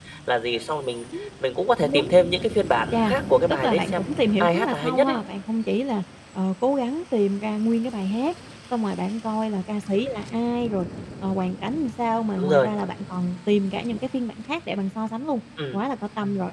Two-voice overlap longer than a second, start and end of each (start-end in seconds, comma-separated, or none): 3.5-5.2